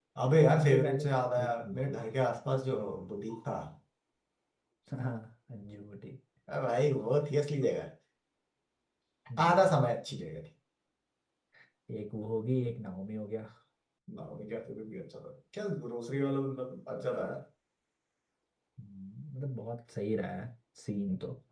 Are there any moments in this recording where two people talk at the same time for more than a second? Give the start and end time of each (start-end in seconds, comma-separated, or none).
0.6-1.9